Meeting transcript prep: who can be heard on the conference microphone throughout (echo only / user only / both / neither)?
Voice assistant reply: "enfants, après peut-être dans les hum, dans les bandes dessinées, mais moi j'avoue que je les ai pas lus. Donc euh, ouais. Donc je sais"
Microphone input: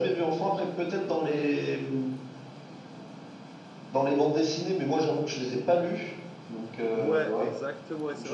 both